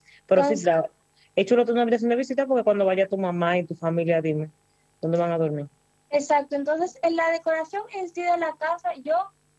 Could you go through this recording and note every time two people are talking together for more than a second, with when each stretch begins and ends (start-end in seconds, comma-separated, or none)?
none